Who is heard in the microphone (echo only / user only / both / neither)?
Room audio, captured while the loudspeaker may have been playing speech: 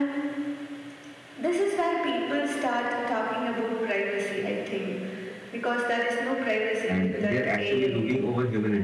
both